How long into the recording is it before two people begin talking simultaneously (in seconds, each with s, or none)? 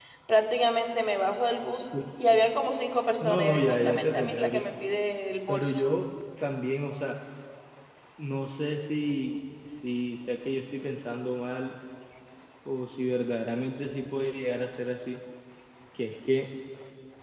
3.2 s